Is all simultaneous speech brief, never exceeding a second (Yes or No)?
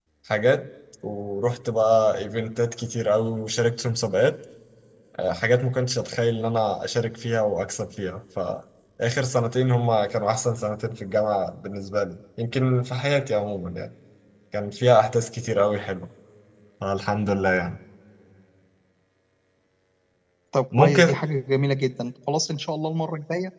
Yes